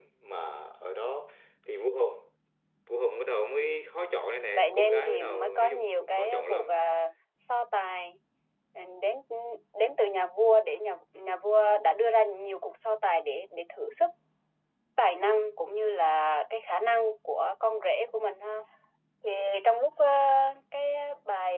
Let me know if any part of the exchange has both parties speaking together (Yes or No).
Yes